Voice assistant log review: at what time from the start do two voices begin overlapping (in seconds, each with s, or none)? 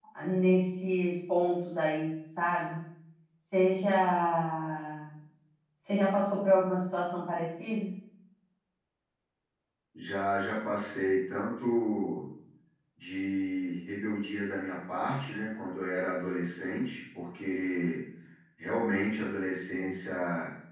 none